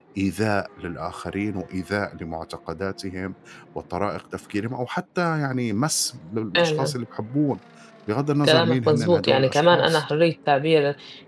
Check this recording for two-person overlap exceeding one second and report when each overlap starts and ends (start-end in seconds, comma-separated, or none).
8.4-10.0